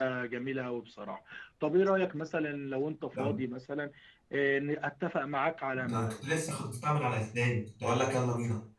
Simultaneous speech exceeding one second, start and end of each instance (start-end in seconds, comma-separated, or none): none